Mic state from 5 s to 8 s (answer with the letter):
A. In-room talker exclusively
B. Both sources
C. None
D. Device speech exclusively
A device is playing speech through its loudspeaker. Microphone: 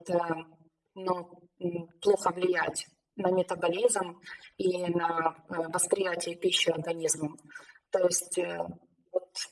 D